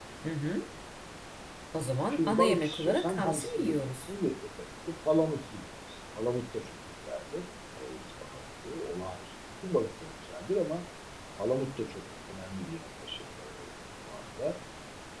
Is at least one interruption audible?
Yes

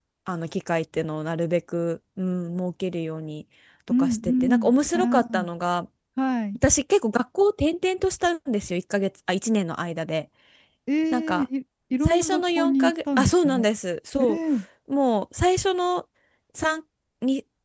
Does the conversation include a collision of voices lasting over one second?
Yes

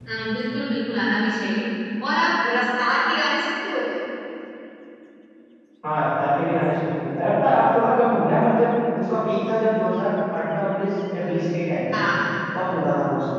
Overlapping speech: No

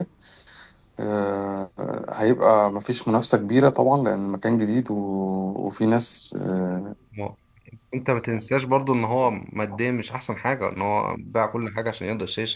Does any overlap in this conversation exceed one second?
No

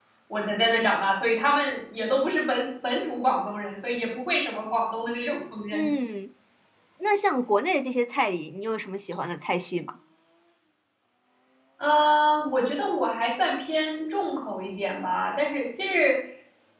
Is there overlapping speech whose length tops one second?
No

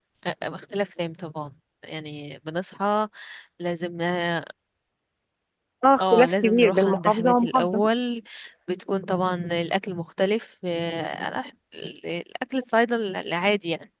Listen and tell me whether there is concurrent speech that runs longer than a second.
Yes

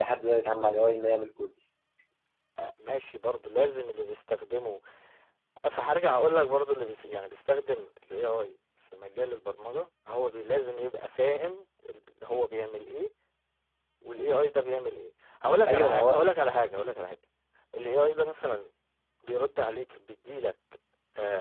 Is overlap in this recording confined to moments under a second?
Yes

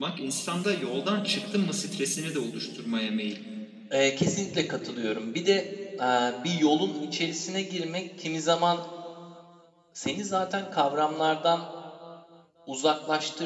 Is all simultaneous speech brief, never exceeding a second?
Yes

